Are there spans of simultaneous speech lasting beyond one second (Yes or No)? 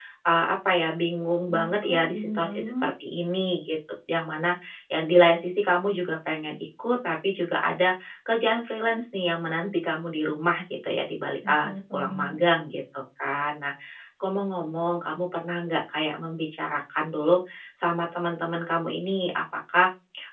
Yes